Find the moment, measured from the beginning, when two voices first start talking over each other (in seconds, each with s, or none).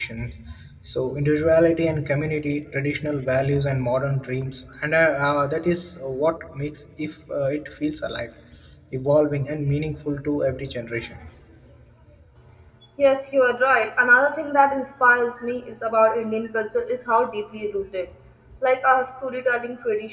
none